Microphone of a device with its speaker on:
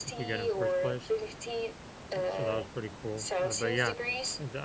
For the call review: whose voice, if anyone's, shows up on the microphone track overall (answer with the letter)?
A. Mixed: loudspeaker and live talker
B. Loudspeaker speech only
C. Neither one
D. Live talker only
A